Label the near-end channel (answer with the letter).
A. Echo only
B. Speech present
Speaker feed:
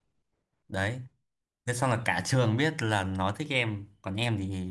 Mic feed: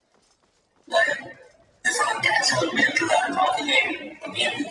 A